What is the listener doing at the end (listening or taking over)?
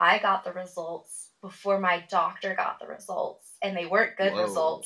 listening